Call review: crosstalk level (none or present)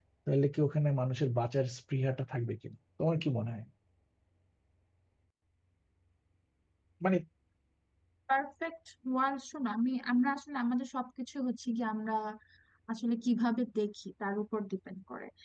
none